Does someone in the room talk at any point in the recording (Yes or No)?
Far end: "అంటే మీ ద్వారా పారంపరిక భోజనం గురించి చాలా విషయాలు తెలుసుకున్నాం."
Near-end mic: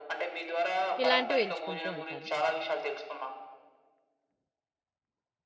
Yes